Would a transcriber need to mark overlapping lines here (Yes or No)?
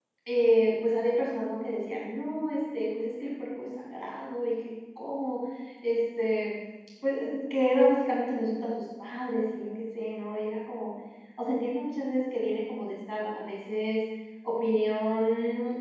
No